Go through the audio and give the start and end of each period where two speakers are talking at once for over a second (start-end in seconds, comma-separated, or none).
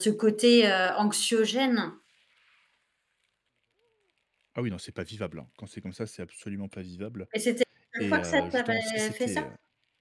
8.0-9.5